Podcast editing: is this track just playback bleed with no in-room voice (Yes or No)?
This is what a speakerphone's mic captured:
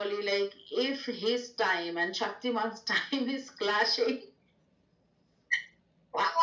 Yes